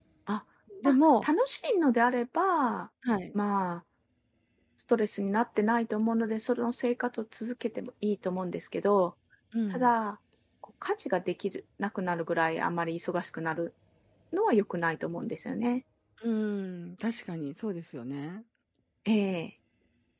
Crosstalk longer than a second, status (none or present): none